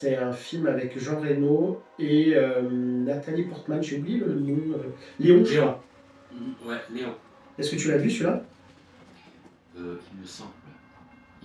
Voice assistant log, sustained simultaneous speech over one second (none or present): none